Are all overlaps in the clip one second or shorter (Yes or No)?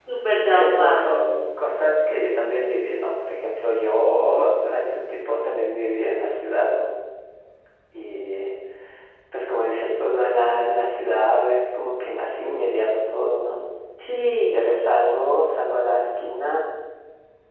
Yes